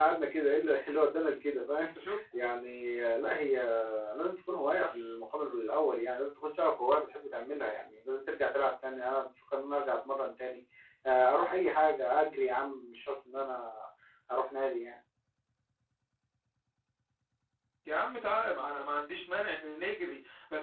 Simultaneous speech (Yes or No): No